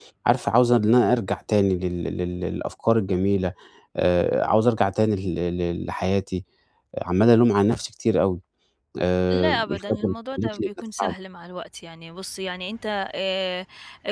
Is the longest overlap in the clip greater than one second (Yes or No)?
Yes